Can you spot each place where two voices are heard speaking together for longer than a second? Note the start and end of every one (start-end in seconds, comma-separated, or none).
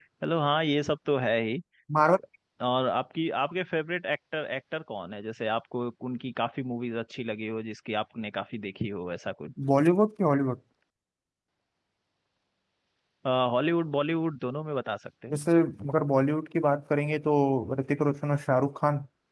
none